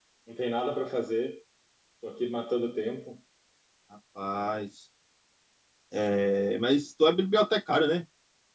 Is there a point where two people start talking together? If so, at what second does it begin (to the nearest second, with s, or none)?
none